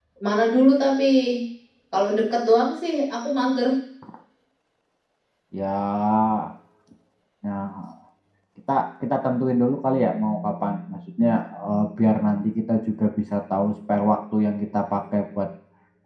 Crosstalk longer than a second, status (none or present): none